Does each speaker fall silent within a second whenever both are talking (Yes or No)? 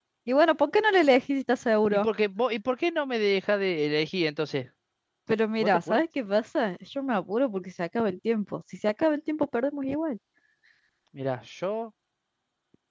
Yes